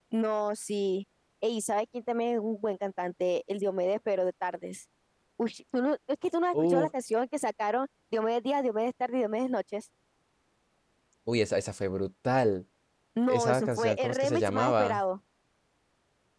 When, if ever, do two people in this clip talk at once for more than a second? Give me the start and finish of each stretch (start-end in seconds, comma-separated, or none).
13.3-15.0